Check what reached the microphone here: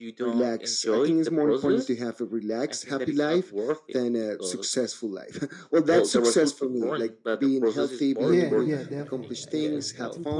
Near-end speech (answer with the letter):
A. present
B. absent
A